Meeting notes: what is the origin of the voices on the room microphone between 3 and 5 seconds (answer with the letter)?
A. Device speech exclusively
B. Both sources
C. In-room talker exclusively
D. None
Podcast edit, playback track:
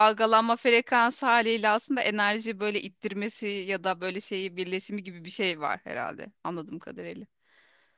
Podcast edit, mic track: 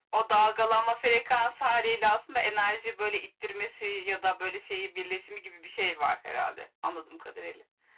A